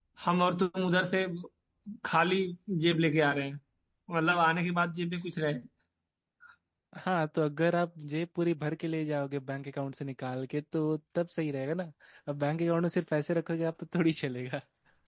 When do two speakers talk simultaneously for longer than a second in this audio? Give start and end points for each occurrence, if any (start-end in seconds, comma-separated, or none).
none